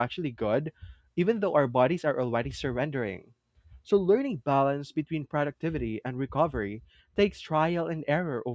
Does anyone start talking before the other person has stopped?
No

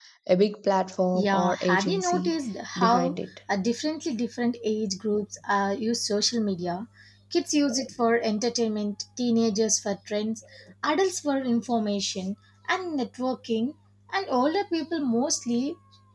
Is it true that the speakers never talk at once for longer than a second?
No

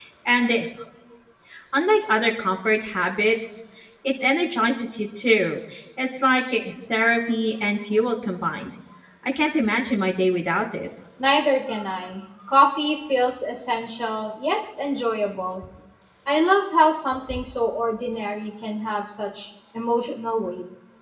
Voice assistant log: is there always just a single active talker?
Yes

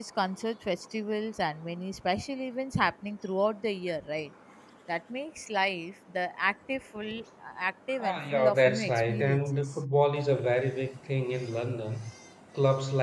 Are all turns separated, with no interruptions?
No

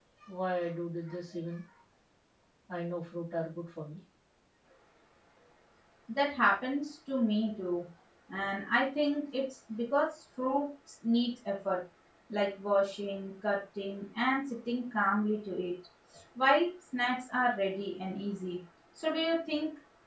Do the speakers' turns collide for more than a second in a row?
No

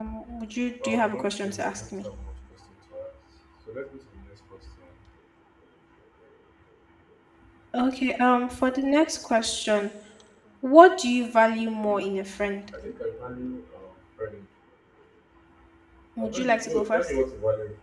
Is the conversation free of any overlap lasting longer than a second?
No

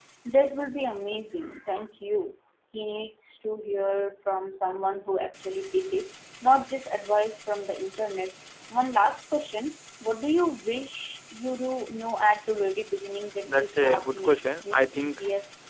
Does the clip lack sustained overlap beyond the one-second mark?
No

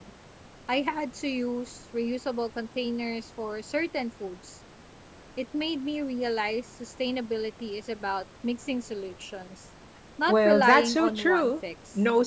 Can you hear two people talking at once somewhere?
Yes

